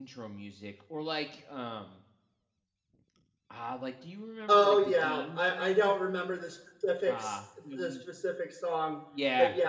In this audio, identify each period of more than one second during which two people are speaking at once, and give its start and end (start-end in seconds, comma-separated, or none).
4.5-5.9